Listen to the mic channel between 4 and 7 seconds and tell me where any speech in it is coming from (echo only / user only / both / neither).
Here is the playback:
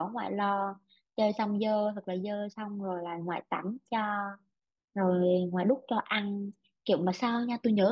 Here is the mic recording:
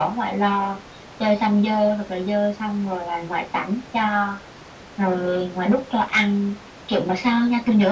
echo only